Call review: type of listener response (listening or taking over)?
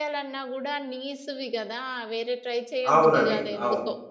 taking over